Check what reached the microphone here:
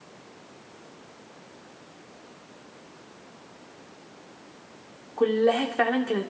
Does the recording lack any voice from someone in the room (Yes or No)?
No